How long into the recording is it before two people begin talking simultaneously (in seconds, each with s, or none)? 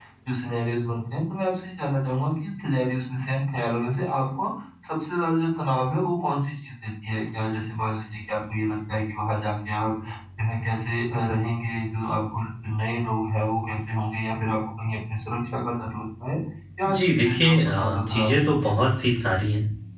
16.9 s